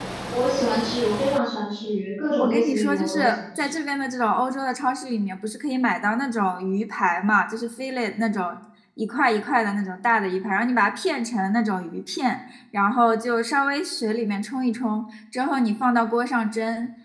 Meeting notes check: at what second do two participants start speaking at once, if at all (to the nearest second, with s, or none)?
2 s